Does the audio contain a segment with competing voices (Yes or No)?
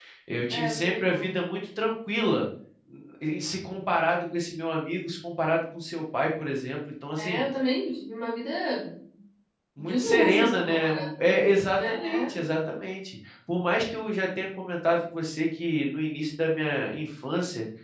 Yes